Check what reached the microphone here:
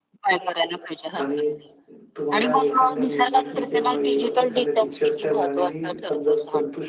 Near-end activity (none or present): present